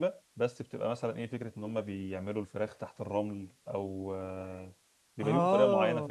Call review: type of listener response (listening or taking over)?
taking over